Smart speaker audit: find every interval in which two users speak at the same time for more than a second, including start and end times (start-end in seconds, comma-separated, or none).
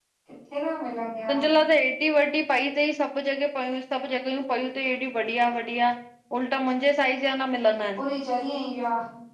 none